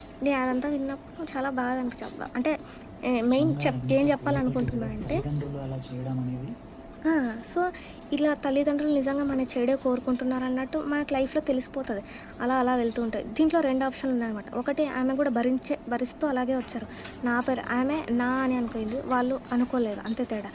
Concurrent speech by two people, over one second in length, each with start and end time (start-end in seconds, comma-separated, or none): 3.2-5.2